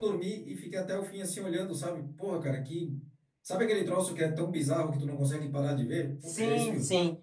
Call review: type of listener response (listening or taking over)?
taking over